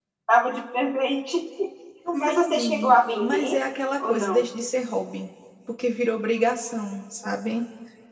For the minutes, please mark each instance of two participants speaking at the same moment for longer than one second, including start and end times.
2.1-3.5

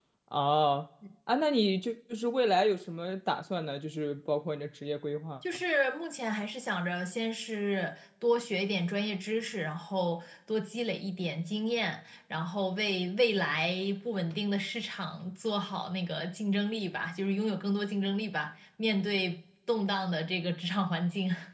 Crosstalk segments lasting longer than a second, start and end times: none

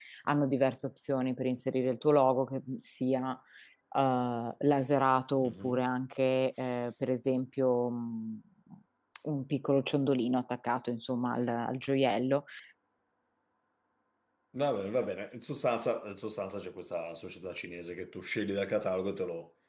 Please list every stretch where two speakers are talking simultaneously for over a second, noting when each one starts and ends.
none

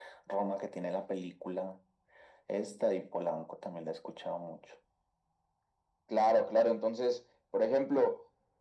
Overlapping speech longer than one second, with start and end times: none

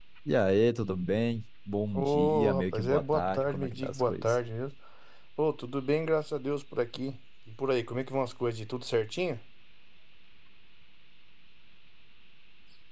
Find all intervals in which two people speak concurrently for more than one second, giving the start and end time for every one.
2.0-4.4

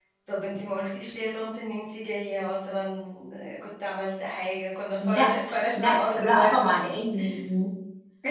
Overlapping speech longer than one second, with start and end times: 5.1-6.7

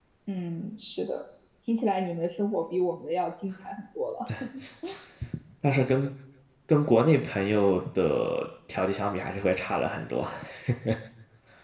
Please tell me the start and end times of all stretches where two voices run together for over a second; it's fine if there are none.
none

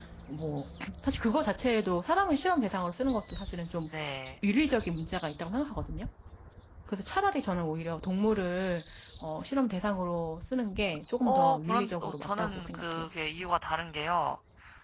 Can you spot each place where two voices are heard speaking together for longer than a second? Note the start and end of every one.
11.2-13.1

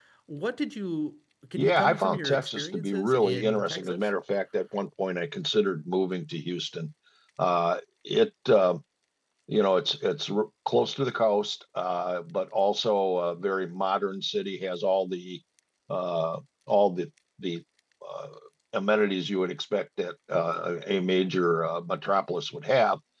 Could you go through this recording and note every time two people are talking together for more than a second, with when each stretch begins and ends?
1.6-4.0

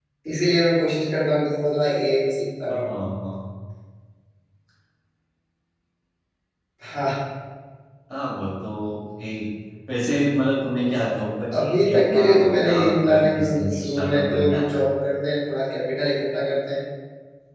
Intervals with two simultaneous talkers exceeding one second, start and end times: 11.5-14.7

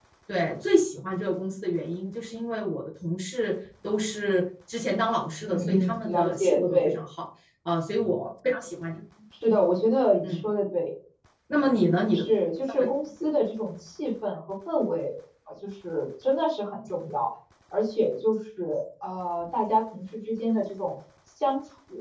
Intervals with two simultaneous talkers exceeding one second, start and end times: 5.5-6.9

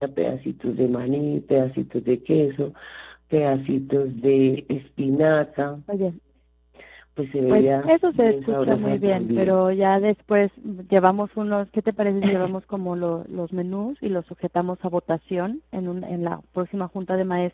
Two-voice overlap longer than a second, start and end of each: 7.5-9.6

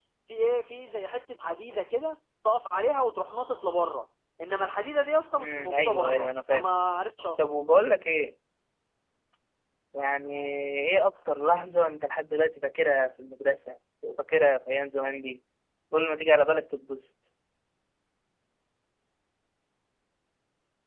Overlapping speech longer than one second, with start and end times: 5.4-6.7

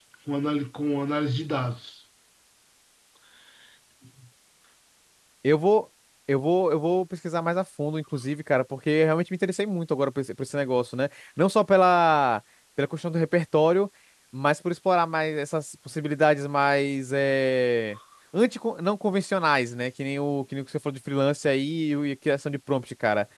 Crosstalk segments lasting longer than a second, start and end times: none

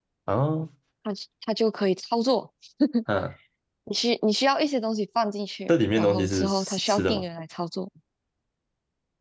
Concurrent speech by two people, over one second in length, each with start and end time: 5.7-7.2

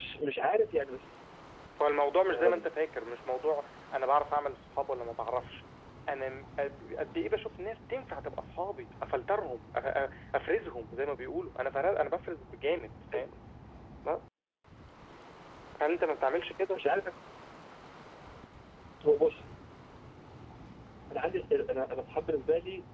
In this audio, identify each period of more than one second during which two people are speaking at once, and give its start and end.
none

